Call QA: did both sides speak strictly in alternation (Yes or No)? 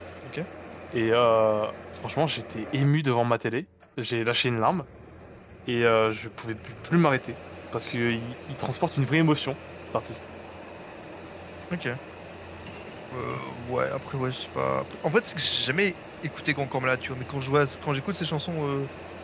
Yes